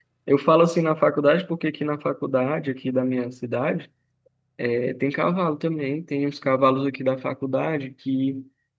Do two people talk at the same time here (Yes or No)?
No